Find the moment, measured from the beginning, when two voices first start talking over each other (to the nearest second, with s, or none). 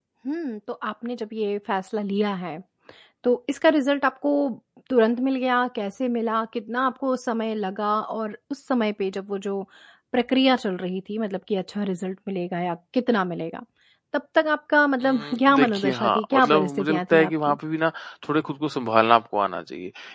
15 s